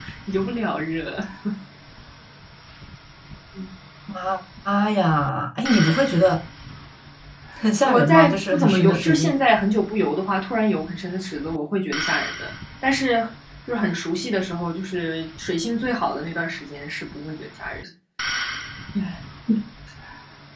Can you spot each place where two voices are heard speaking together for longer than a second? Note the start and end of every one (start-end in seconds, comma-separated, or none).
7.8-9.3